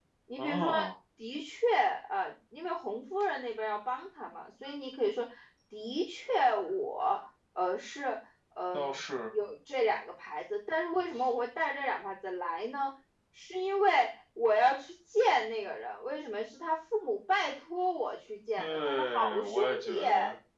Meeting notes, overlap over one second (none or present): present